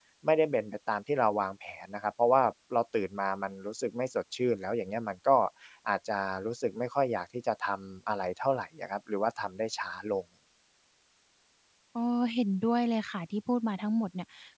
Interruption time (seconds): none

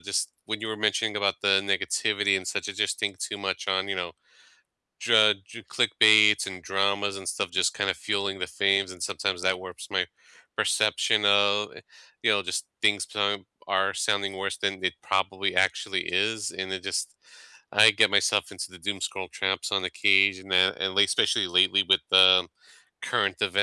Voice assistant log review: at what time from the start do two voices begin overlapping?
none

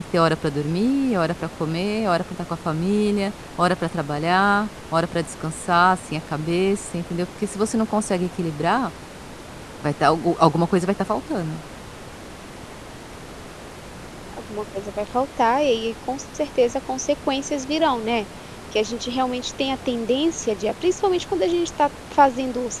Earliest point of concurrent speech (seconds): none

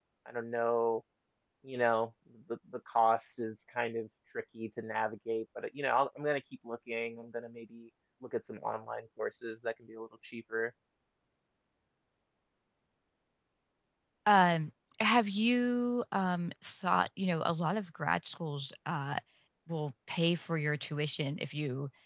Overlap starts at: none

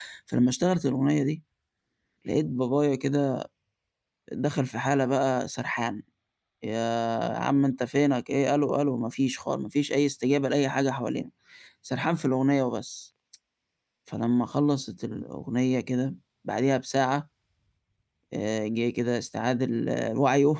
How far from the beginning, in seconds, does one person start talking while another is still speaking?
none

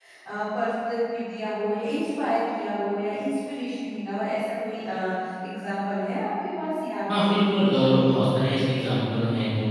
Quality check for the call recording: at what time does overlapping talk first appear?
7 s

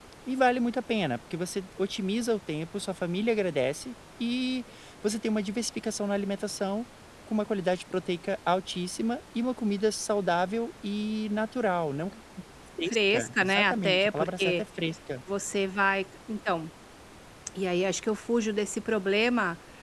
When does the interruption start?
13 s

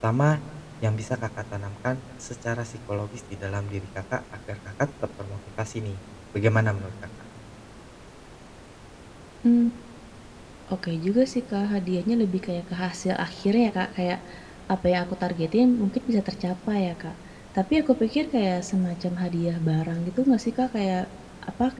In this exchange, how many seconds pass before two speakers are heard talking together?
none

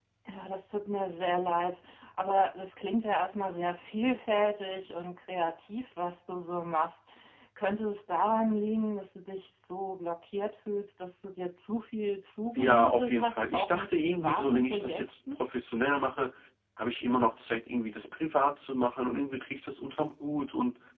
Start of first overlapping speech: 13 s

